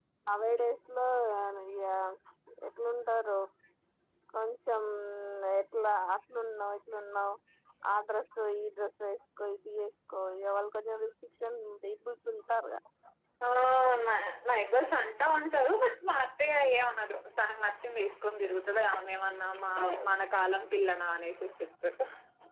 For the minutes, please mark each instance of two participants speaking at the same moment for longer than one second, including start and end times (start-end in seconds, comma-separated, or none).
none